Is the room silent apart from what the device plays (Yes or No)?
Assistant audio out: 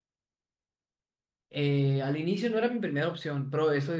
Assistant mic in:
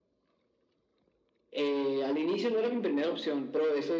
Yes